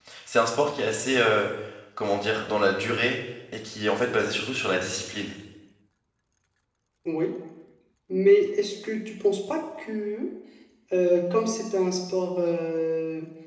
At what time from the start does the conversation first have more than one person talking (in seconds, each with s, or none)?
none